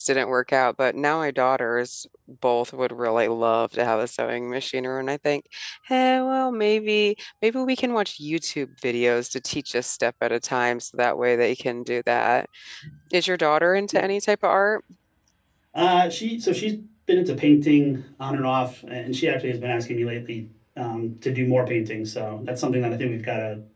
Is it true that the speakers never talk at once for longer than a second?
Yes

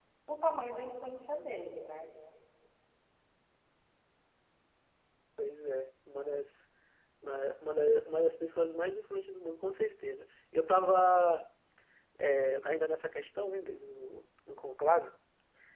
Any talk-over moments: No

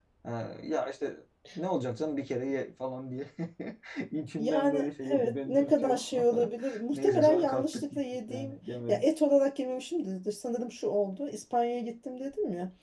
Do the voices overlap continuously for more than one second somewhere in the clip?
Yes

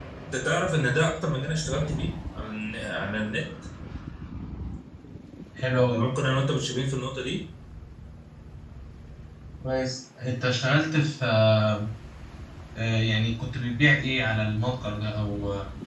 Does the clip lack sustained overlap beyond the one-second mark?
Yes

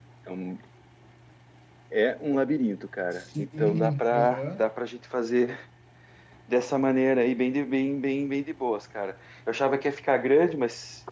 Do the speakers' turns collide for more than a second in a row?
Yes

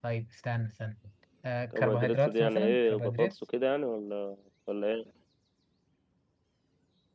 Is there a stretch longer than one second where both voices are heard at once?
Yes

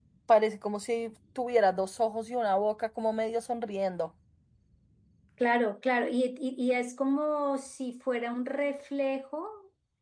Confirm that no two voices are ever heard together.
Yes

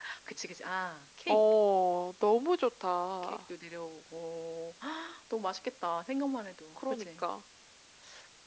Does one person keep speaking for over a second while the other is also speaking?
No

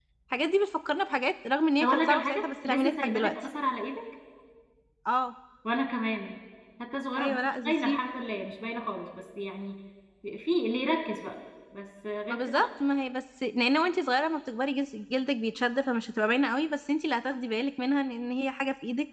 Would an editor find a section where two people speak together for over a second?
Yes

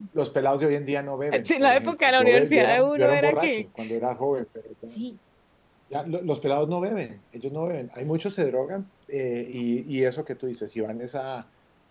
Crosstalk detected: Yes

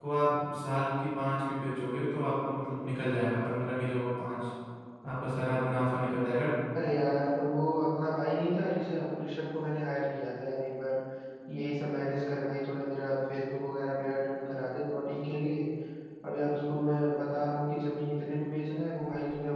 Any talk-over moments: No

